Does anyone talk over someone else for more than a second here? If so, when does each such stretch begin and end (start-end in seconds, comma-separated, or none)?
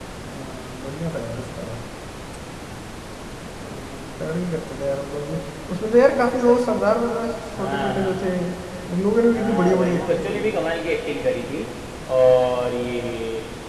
9.3-10.6